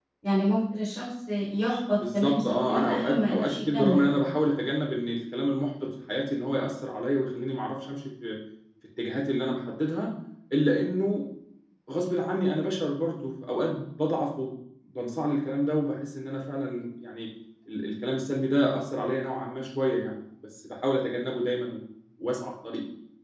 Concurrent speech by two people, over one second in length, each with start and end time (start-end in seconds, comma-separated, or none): 2.1-4.2